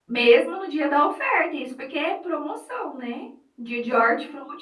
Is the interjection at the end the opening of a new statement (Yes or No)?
No